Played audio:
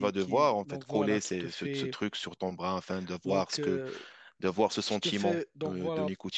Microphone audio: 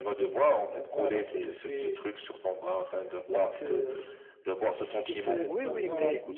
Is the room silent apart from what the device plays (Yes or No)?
No